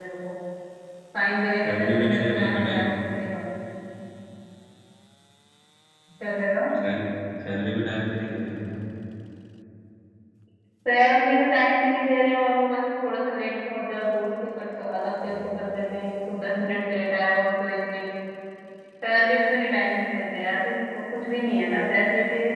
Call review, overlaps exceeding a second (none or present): present